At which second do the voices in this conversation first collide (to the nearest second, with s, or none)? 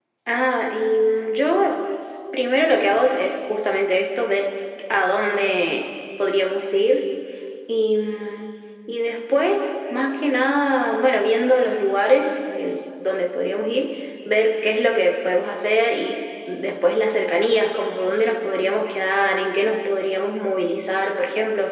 none